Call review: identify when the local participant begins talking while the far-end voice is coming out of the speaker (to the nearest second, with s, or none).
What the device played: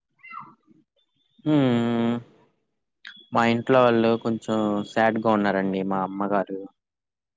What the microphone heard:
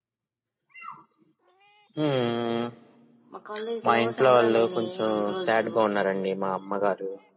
3 s